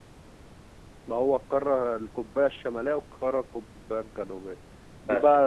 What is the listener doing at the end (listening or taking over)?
listening